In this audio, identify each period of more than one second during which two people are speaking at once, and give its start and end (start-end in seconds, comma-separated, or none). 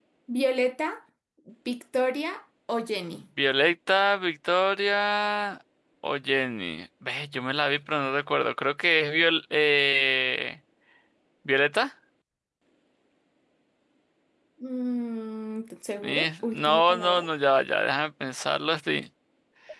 16.0-17.3